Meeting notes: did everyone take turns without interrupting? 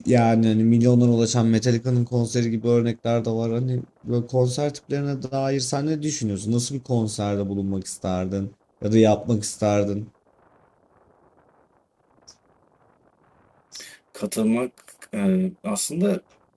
Yes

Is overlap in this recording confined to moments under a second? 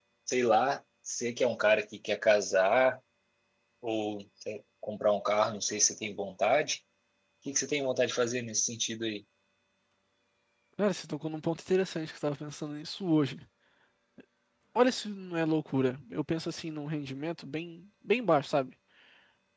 Yes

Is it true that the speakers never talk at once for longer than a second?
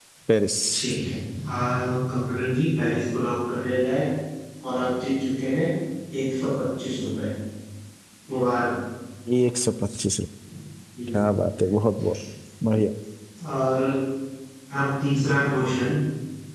Yes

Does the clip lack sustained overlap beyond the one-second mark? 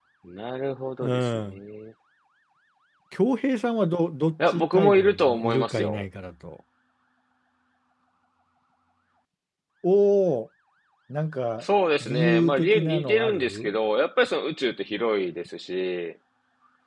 No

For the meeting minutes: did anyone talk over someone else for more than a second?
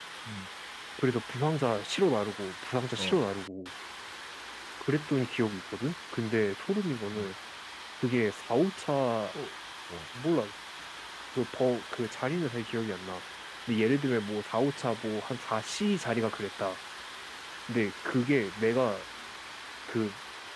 No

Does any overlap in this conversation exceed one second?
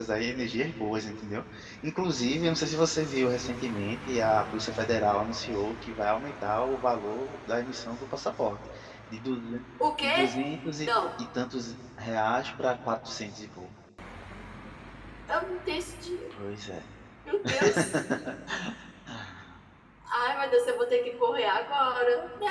No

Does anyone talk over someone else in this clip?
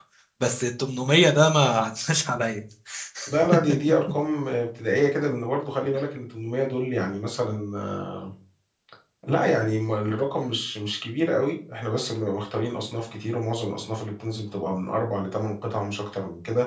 No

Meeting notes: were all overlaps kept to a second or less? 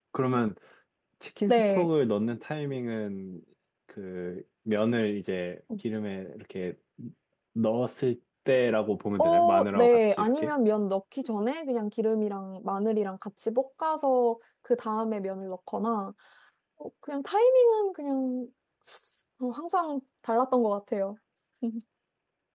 No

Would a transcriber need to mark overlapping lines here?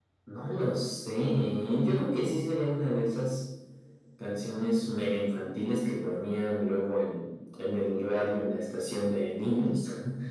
No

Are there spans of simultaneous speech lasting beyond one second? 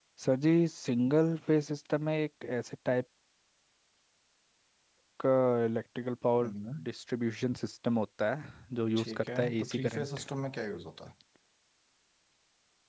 Yes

